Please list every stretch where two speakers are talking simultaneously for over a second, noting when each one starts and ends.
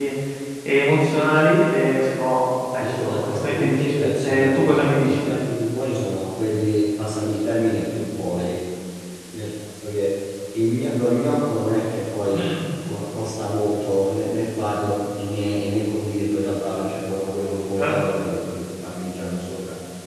2.8-5.2

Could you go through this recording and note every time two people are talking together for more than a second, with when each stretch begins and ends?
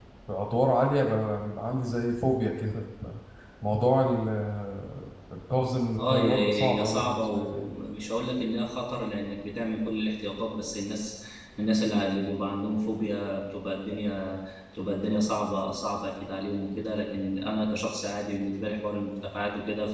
6.0-7.7

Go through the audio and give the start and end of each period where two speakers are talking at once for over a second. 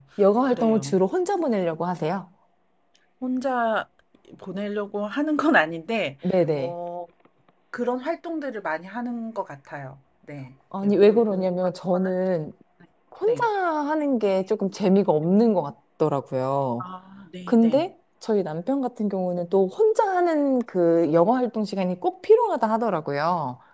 10.8-12.1

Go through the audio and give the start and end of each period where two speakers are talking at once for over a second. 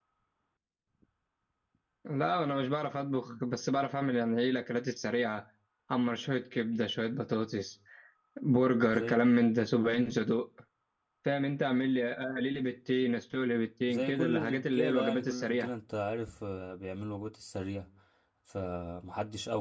13.9-15.7

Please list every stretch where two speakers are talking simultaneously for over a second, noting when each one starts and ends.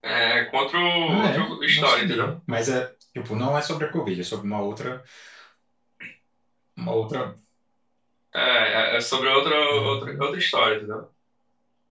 1.1-2.3

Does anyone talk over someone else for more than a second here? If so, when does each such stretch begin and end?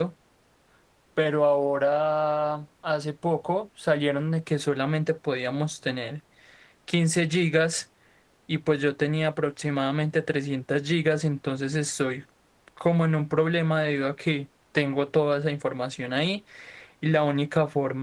none

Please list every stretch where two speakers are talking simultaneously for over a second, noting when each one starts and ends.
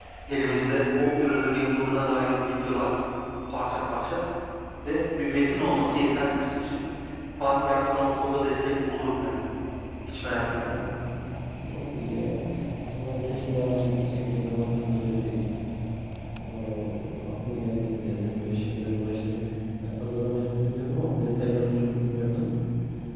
none

